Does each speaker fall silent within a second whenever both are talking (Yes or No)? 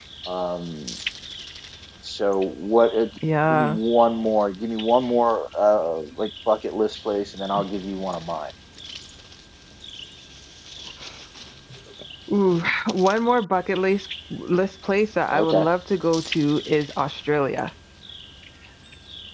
Yes